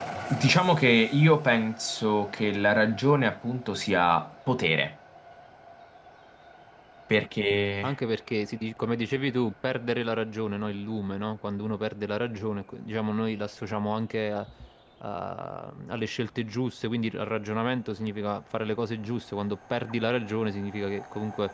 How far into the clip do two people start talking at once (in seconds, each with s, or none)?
none